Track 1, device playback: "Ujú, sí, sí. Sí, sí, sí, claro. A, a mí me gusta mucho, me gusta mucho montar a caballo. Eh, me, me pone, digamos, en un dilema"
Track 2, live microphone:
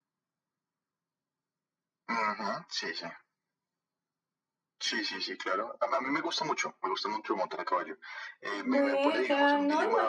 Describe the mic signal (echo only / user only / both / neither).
both